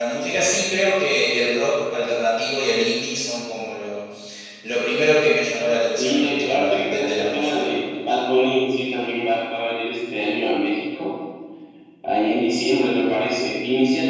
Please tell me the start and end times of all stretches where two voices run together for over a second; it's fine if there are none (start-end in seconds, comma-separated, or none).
6.0-7.7